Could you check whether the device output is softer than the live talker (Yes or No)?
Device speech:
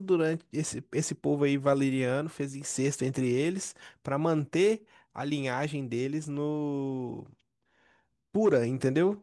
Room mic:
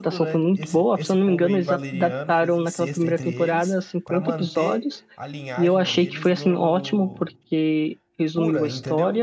Yes